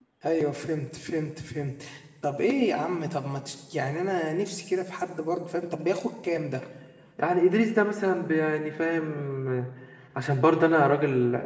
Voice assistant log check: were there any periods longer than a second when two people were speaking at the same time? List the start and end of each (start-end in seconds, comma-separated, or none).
none